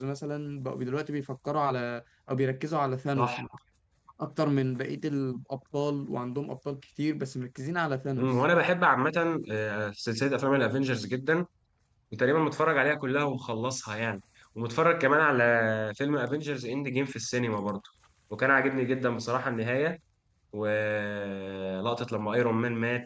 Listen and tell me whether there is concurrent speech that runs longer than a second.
No

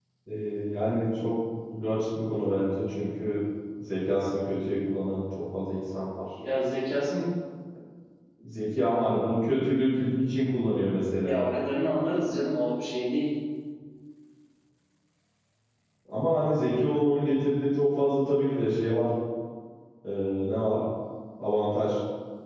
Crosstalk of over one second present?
No

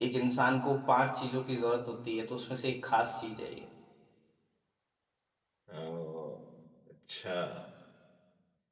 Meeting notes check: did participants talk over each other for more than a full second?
No

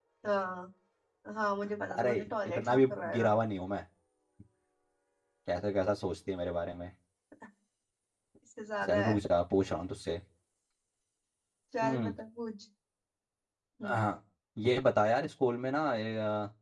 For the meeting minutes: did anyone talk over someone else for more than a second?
Yes, from 2.0 s

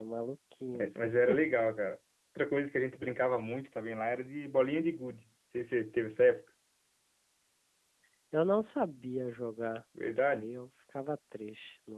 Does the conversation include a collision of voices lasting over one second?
No

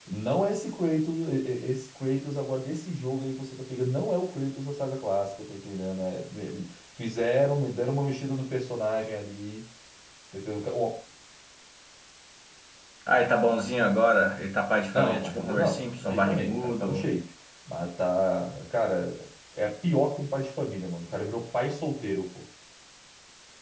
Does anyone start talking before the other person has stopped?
Yes, from 14.9 s

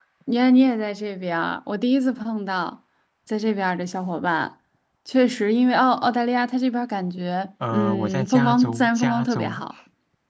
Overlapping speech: Yes, from 7.6 s

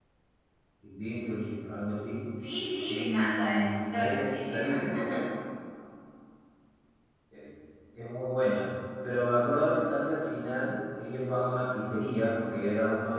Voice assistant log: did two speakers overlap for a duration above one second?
Yes, from 2.9 s

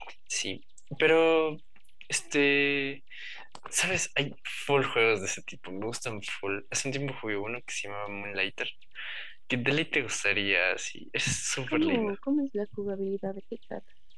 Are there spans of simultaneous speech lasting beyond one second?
No

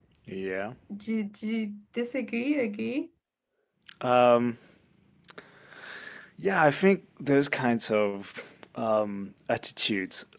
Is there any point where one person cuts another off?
No

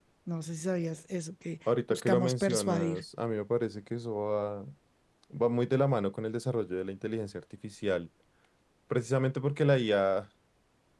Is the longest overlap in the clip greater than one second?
Yes, from 1.7 s

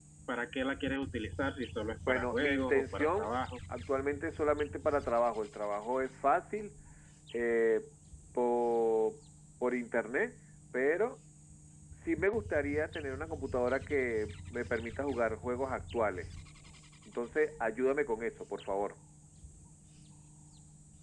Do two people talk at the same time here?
Yes, from 2.1 s

